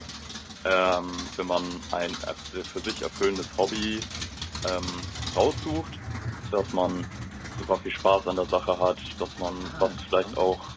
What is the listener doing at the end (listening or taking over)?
listening